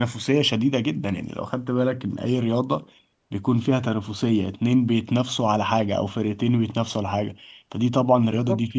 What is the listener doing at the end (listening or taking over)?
taking over